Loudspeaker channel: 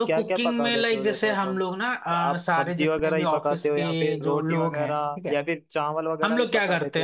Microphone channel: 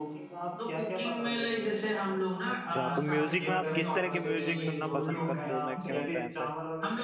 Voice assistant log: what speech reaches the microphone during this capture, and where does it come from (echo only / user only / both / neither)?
both